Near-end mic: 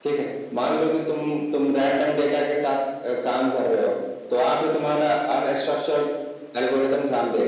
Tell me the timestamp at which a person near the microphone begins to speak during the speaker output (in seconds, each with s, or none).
none